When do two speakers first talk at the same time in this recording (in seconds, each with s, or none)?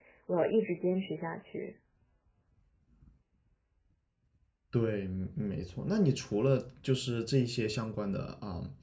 none